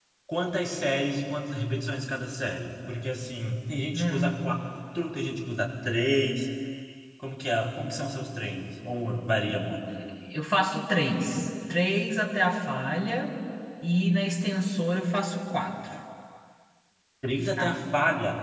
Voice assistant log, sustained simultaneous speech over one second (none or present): none